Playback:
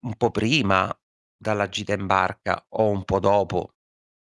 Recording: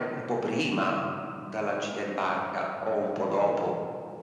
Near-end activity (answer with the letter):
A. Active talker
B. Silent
B